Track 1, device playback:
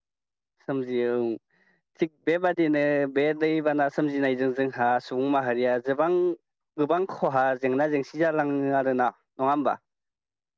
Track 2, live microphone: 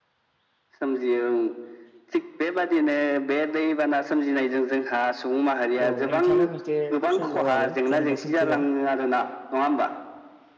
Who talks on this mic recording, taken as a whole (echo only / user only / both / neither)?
both